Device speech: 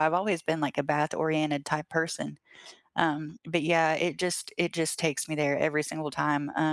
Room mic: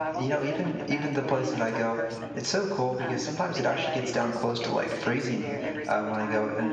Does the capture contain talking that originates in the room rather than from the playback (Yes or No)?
Yes